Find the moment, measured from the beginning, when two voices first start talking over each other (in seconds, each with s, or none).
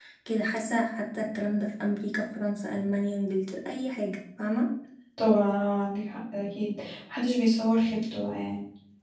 none